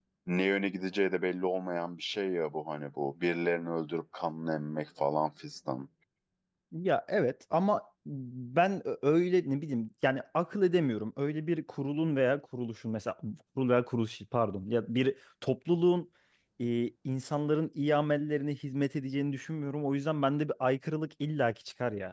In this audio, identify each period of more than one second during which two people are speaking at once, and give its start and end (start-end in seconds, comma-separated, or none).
none